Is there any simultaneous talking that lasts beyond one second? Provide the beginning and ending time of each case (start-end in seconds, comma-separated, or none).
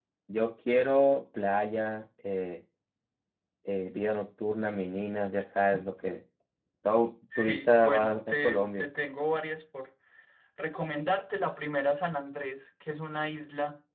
7.4-8.8